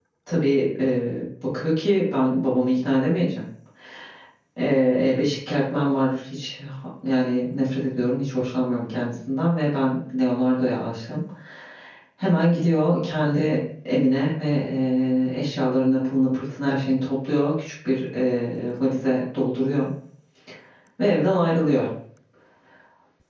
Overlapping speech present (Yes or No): No